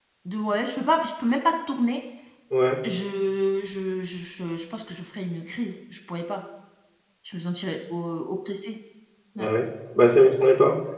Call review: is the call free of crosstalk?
Yes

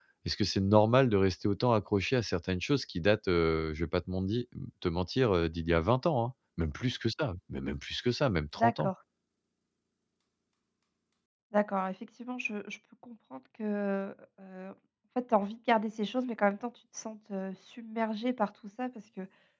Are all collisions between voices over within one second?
Yes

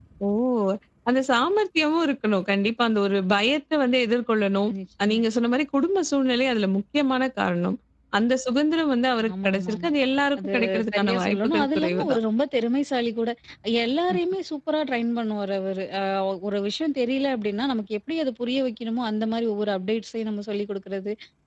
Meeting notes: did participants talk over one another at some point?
Yes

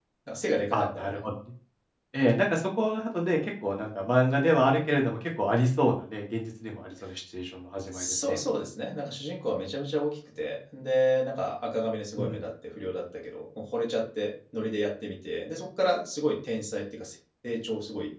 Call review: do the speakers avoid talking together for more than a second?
Yes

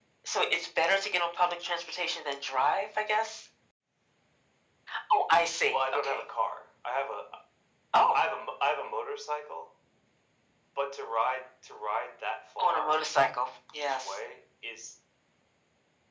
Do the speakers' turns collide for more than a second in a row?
No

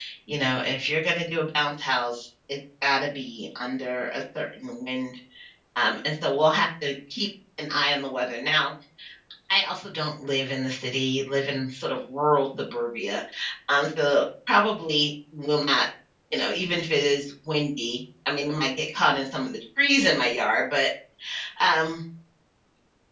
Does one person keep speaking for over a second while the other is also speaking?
No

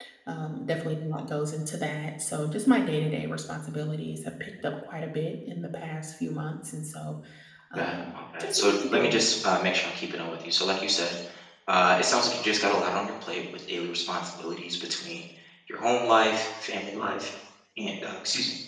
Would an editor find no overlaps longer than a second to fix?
No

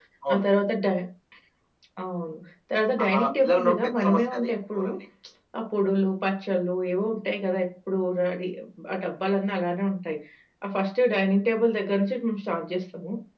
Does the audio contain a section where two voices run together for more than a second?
Yes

